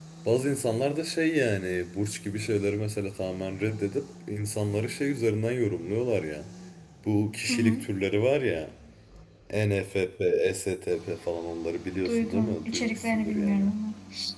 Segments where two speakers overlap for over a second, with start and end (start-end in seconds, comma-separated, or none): 12.0-13.7